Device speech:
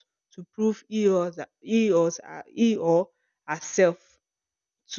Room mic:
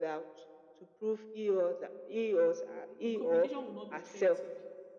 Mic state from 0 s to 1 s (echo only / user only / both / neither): echo only